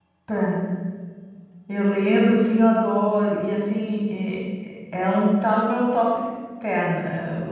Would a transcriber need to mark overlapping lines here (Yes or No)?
No